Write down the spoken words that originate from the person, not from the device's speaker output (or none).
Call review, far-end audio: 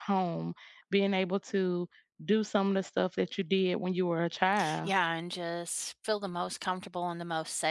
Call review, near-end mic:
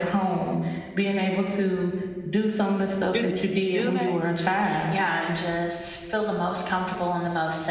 Is it Do they?